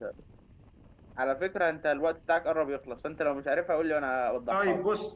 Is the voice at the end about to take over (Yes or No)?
Yes